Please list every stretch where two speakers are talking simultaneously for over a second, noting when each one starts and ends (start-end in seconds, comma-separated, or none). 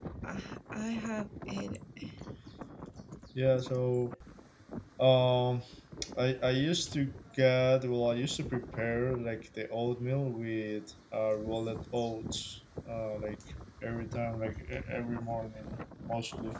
none